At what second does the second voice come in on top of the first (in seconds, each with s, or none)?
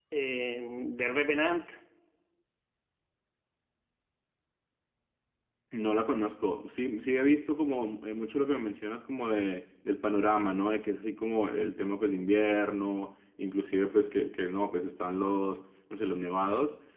none